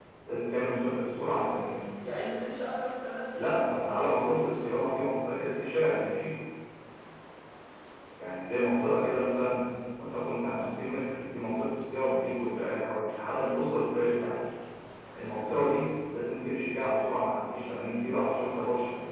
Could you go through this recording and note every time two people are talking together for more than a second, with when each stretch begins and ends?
none

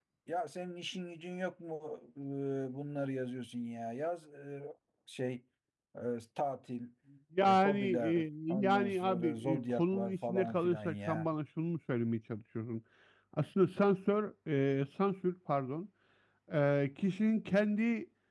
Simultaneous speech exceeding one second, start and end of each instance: 7.4-11.3

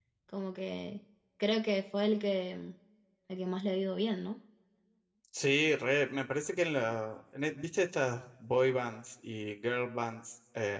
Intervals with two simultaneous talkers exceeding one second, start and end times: none

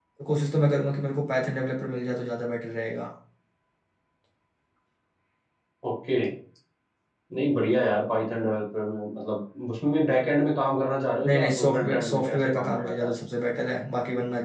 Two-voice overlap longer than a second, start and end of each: 11.2-13.2

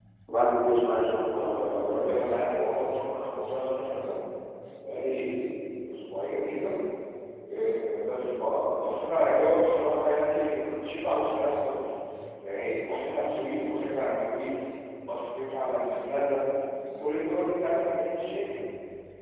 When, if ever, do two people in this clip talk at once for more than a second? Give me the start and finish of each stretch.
1.3-2.6

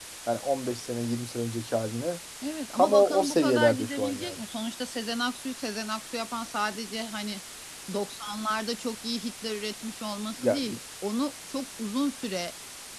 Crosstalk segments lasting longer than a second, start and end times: 2.8-4.4

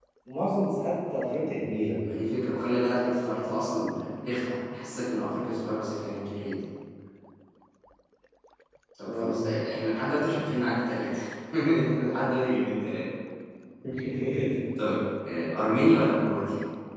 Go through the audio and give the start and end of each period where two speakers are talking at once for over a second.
none

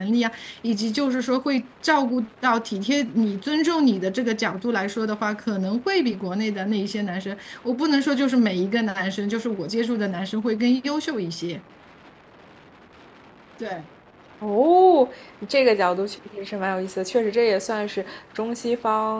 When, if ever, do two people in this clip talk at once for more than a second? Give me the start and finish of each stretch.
none

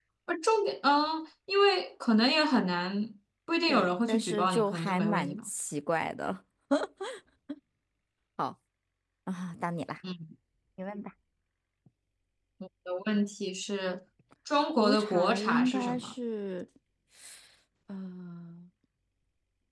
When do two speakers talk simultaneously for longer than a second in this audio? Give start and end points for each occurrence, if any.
3.7-5.5, 14.7-16.1

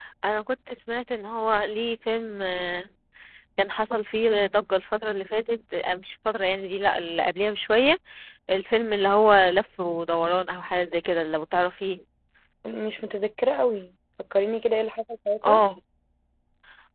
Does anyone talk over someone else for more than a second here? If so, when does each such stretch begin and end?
none

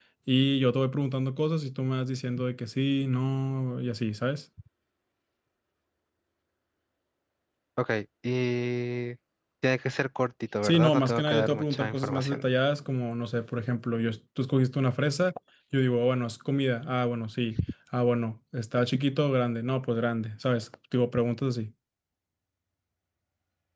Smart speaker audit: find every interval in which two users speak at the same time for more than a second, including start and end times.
10.6-12.4

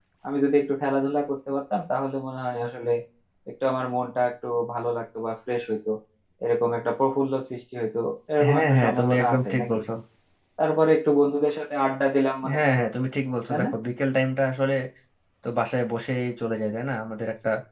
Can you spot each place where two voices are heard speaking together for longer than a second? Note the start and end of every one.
8.5-9.8

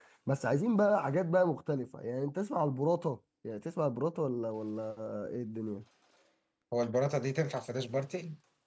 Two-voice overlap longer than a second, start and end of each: none

